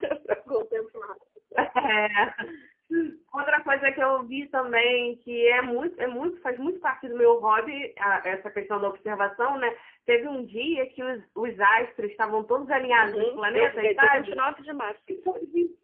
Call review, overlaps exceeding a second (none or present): present